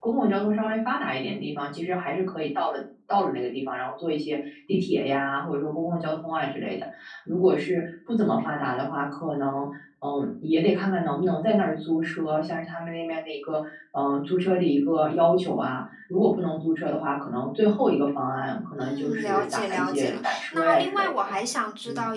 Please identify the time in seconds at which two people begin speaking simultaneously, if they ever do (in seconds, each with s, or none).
18.8 s